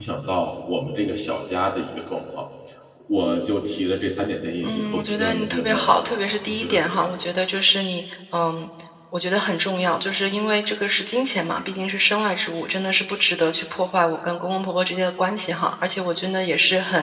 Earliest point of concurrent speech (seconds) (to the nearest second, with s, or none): 5 s